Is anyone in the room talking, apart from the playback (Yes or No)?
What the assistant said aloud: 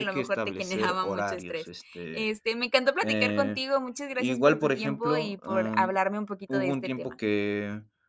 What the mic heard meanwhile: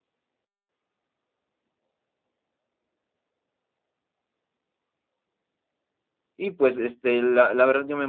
Yes